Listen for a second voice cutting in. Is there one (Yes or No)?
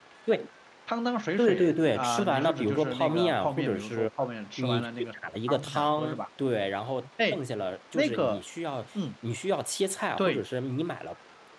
Yes